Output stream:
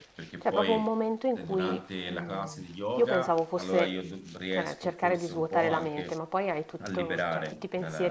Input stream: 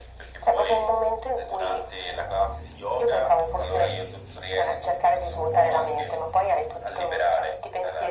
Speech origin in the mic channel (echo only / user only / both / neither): echo only